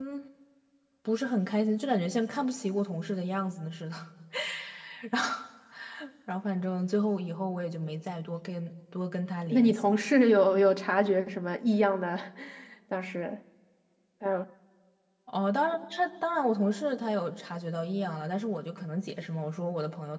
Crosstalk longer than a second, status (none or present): none